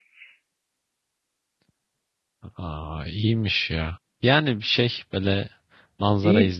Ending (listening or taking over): listening